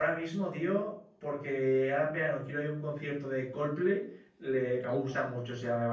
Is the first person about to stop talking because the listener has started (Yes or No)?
No